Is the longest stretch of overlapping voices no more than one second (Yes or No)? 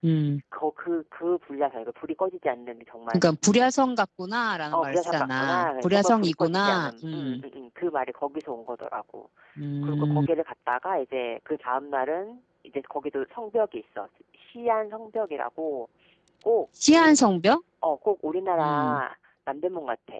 No